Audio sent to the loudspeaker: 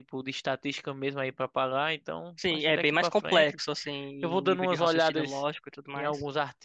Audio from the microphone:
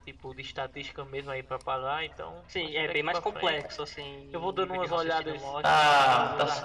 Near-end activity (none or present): present